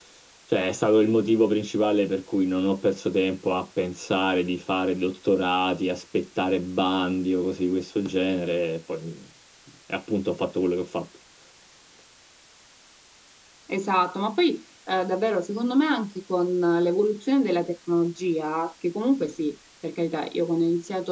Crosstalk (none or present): none